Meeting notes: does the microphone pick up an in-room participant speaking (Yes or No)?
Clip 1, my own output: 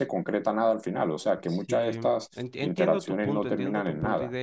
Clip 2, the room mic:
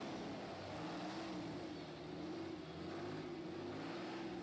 No